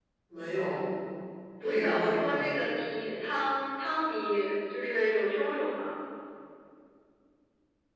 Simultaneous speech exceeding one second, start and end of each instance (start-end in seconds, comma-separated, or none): 1.6-2.8